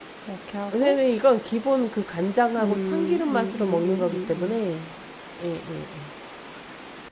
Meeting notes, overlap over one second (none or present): present